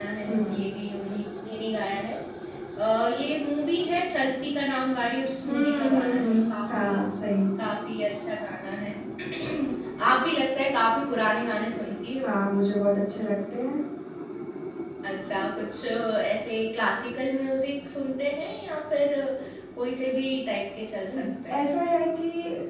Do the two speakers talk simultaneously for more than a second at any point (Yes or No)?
Yes